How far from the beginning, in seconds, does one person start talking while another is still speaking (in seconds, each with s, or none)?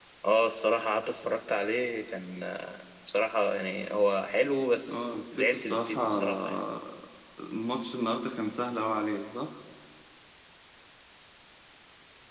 4.9 s